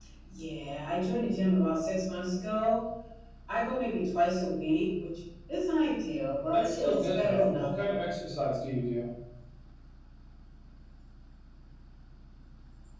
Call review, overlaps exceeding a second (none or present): present